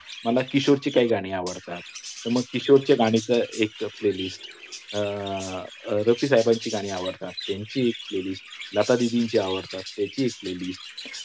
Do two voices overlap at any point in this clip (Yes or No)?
No